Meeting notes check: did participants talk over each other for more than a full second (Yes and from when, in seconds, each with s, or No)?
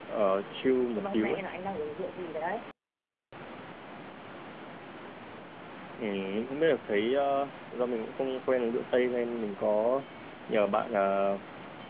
No